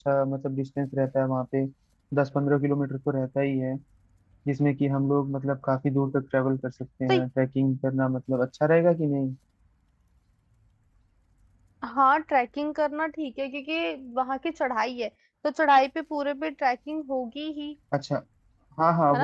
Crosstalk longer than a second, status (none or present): none